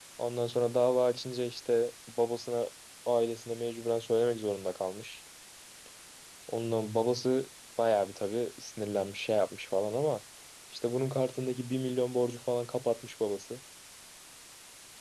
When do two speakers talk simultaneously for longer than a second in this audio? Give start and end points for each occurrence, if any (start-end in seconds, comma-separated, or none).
none